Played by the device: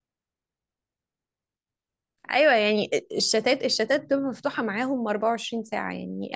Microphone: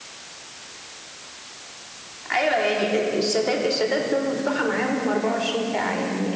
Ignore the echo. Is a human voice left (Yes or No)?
No